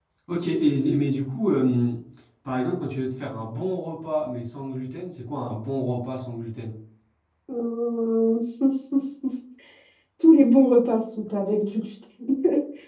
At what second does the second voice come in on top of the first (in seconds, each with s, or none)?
none